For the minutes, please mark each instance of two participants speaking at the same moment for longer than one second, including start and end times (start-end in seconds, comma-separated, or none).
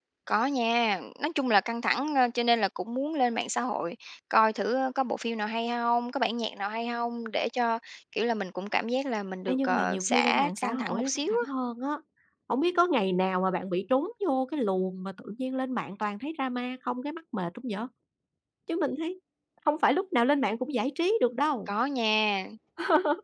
9.5-11.5